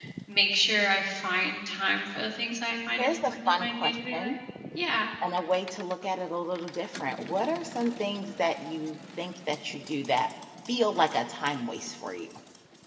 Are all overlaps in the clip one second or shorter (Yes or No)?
No